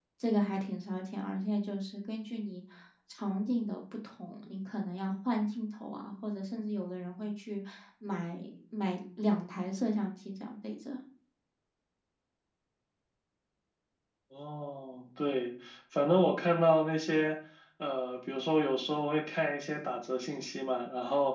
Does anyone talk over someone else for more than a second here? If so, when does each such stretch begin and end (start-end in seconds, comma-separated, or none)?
none